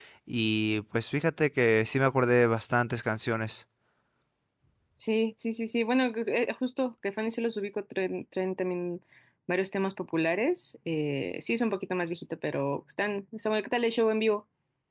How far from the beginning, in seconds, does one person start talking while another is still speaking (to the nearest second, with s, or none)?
none